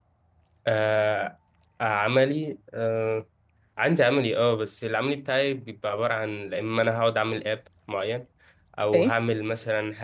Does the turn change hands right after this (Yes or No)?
No